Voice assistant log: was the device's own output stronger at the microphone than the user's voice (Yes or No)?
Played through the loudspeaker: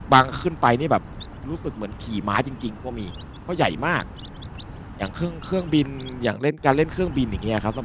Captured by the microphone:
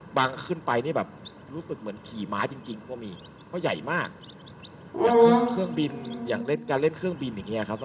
No